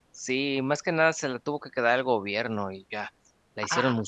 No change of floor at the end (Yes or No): No